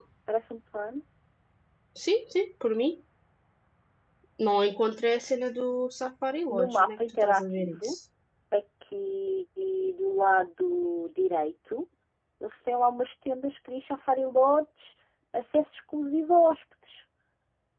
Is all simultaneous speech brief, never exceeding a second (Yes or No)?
No